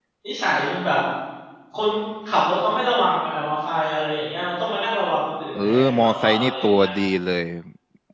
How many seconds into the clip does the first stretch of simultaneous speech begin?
5.5 s

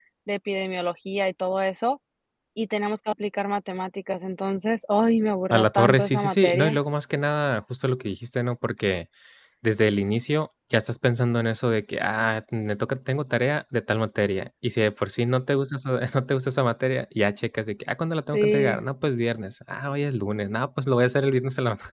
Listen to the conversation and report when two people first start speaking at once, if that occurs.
5.5 s

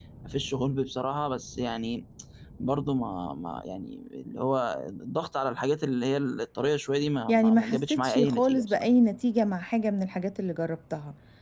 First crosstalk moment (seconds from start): 7.3 s

